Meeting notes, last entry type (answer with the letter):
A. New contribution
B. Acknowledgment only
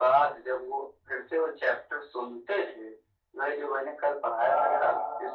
B